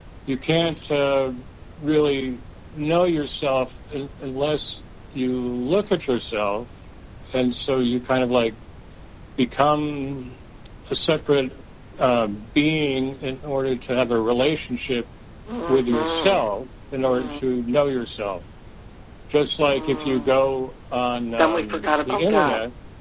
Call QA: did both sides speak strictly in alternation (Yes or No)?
No